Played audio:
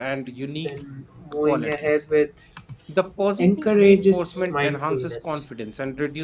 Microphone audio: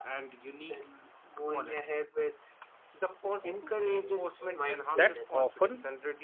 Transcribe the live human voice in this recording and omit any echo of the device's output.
that often

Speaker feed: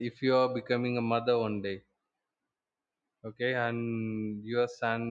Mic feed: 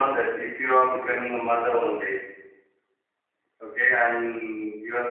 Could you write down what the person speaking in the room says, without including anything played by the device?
none

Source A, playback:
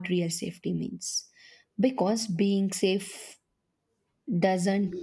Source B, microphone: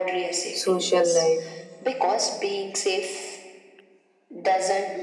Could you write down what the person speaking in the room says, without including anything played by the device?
social life.

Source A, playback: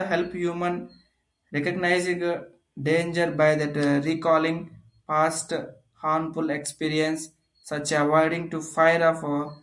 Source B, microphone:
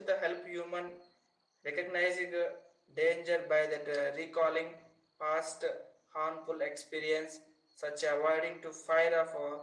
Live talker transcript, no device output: none

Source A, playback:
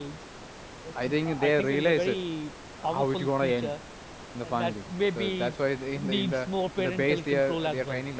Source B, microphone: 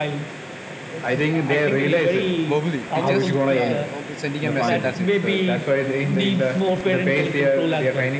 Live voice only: verbally we just uh, okay sending a message that's it

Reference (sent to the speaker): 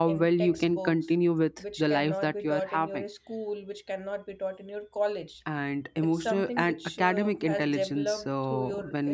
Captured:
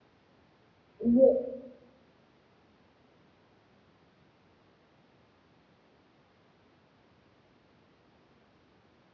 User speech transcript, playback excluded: Yeah,

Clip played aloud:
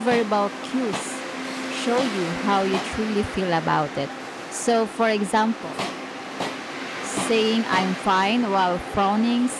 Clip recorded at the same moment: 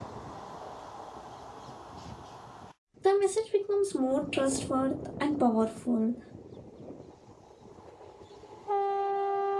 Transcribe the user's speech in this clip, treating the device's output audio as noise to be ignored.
the message becomes more trustworthy and powerful.

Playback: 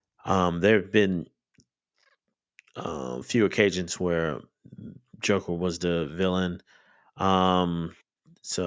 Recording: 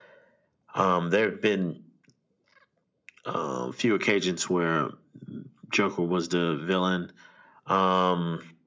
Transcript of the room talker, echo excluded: none

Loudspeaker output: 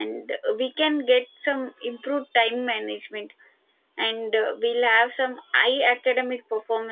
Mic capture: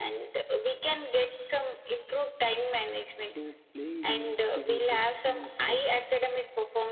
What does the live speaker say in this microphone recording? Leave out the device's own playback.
So playing games is a good thing for

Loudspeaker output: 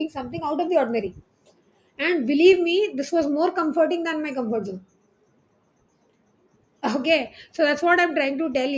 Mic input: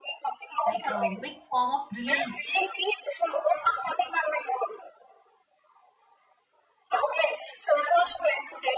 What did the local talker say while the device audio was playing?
like a big form of relief

